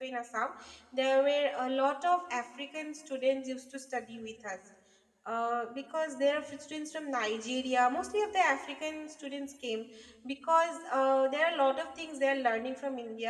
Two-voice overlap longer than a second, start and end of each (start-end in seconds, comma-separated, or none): none